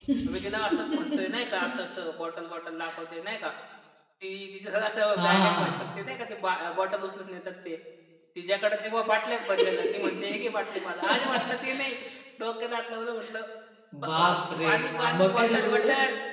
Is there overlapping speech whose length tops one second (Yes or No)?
Yes